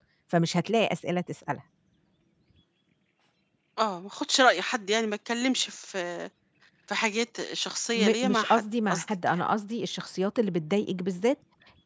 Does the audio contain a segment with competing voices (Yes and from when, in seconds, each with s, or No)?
Yes, from 7.9 s